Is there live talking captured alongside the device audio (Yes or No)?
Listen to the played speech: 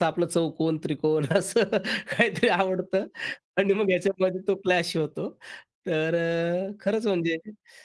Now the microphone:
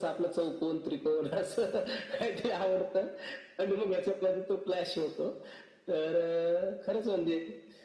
No